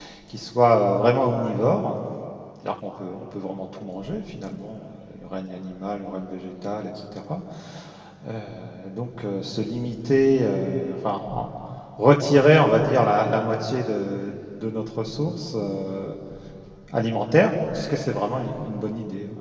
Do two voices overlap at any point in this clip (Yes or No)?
No